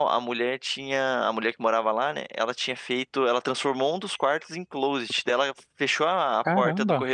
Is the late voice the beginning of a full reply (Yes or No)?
No